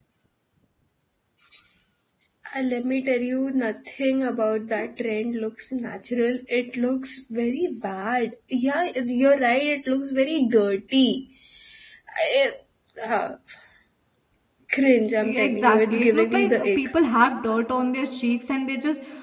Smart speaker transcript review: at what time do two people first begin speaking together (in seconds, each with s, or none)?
15.2 s